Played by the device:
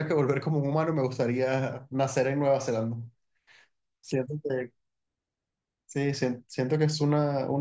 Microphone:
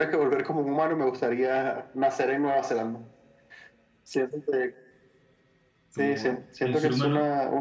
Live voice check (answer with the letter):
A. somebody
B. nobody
A